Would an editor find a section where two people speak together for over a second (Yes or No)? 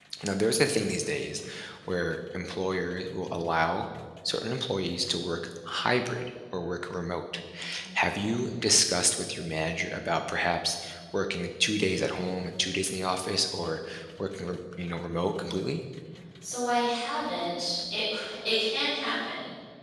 No